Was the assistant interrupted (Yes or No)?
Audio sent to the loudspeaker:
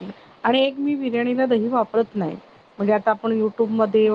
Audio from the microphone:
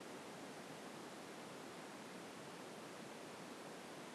No